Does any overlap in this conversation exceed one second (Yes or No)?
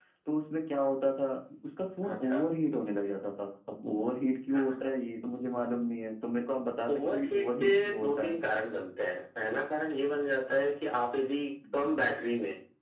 Yes